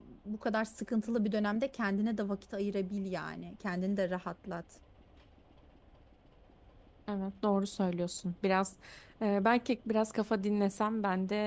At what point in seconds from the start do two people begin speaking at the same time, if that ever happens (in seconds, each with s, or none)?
none